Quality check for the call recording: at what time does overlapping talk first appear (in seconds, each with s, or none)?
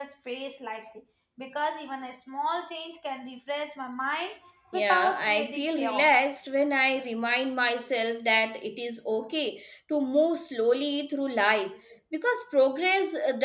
4.7 s